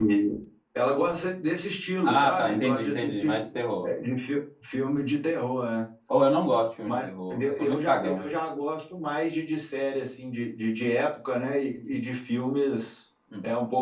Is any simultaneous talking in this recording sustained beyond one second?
Yes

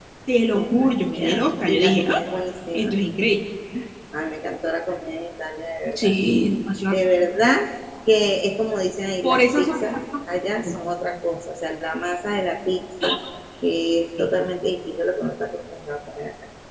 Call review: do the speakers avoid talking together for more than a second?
No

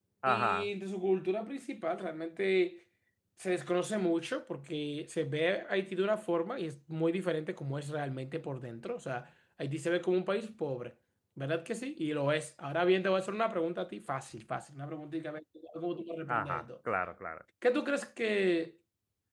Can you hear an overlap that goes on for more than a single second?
No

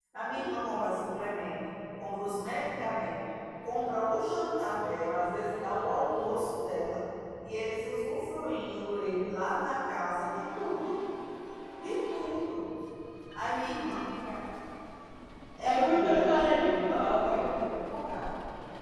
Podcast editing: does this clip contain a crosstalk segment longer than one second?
Yes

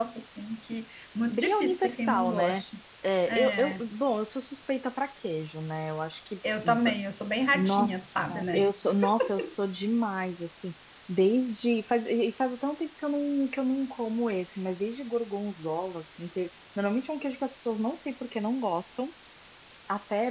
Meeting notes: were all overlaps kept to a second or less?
No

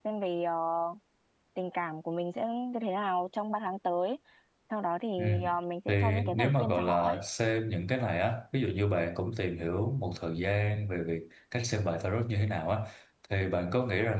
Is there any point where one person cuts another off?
Yes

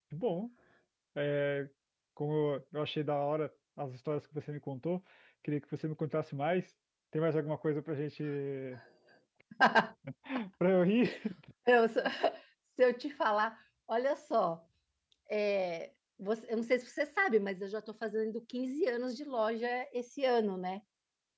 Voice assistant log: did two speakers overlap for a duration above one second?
No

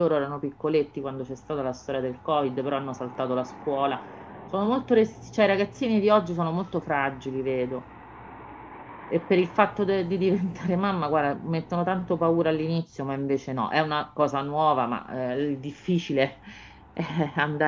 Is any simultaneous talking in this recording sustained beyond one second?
No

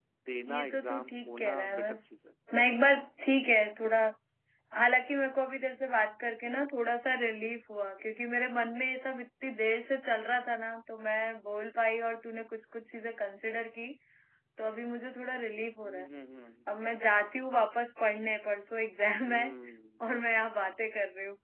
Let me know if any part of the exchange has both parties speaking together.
Yes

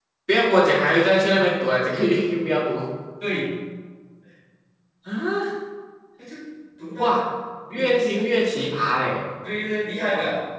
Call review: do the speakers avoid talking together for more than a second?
Yes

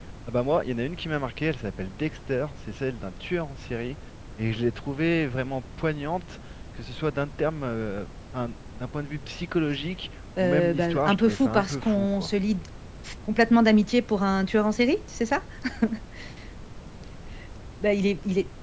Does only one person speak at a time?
No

